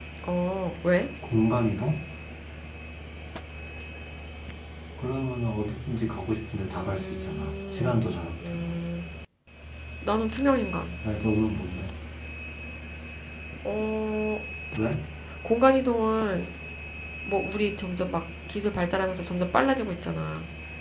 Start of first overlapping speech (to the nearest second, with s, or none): 7 s